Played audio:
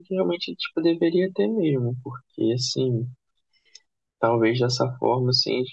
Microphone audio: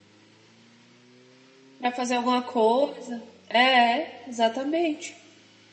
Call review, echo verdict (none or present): none